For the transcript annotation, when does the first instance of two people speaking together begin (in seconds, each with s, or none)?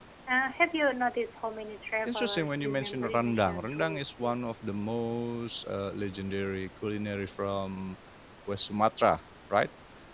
2.0 s